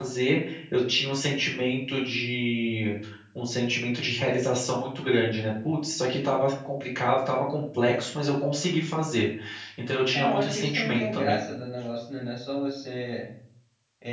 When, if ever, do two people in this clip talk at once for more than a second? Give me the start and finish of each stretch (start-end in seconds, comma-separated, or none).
10.2-11.4